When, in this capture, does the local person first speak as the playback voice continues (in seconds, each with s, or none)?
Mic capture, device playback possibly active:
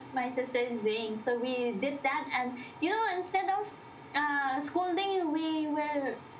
none